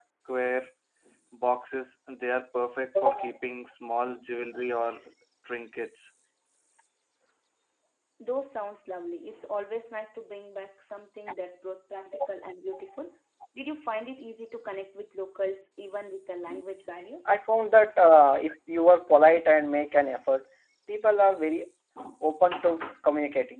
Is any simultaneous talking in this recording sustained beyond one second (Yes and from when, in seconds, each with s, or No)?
No